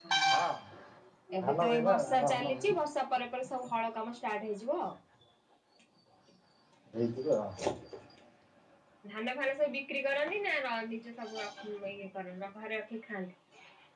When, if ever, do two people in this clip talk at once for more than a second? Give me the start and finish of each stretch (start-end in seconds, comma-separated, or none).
1.4-2.7